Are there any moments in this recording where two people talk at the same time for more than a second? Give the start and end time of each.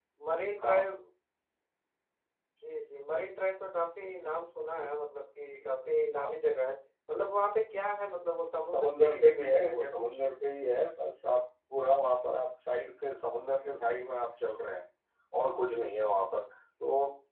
8.7-10.0

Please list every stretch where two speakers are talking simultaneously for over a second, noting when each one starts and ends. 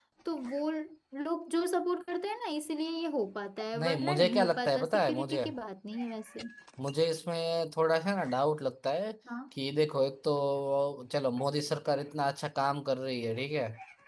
3.8-5.4

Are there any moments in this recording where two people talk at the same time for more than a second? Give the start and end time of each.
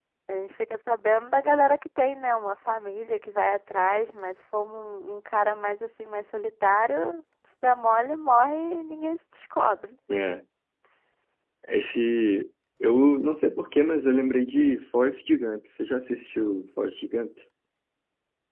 none

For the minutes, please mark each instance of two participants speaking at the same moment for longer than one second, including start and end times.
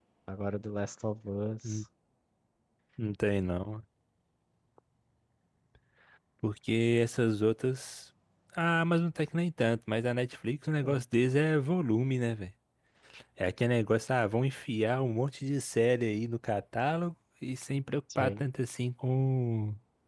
none

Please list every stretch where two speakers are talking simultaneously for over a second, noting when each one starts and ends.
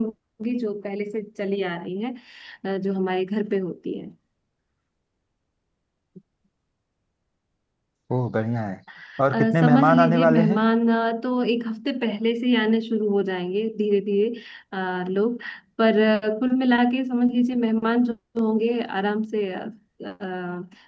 9.3-10.6

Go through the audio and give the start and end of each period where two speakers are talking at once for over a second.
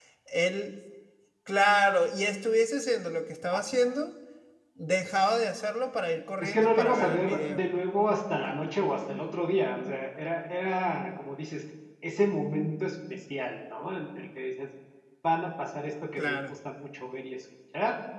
6.4-7.6

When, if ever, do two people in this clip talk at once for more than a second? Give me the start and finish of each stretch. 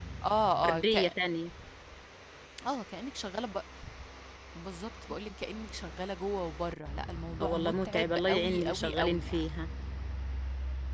7.4-9.5

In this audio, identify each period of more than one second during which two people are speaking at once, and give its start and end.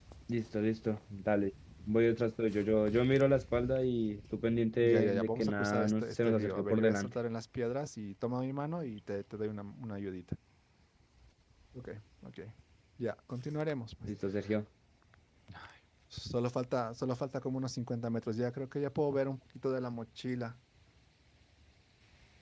4.8-7.1

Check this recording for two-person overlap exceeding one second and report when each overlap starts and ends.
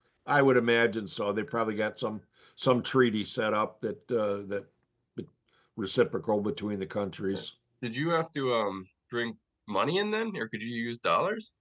none

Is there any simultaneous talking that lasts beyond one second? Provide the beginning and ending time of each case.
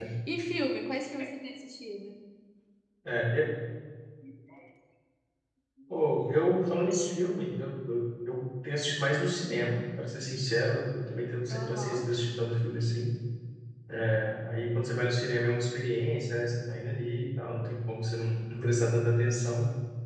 none

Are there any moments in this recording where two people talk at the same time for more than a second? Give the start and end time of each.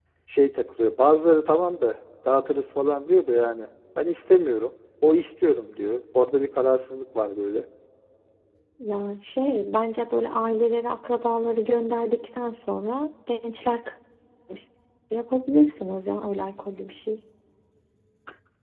none

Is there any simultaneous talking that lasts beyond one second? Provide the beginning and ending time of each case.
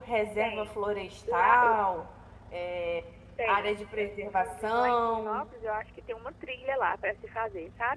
3.5-5.4

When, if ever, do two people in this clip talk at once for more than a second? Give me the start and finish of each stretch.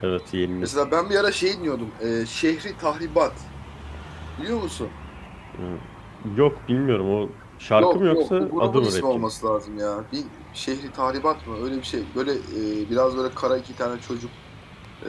7.8-9.3

